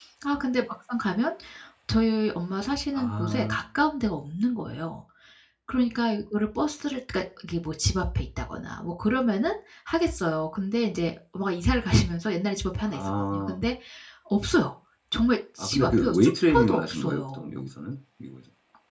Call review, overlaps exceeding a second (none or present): present